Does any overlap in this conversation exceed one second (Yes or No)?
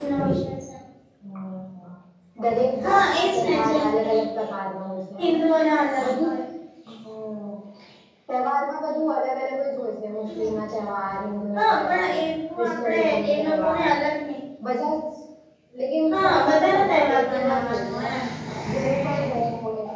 Yes